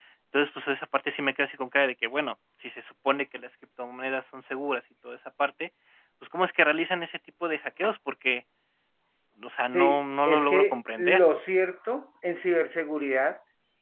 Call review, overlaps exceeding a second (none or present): present